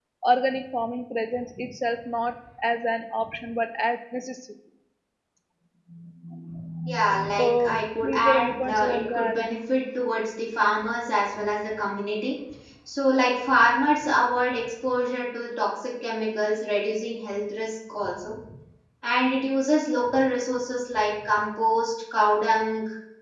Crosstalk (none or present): present